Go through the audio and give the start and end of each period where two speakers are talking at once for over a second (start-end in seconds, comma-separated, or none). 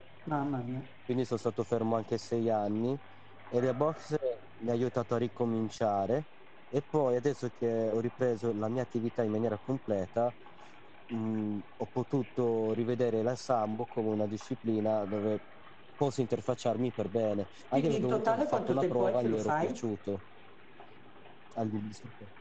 17.7-19.8